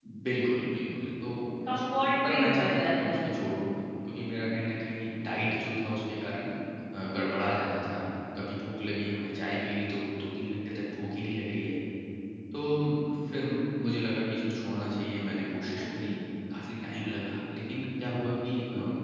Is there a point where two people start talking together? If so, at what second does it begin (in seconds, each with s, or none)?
1.8 s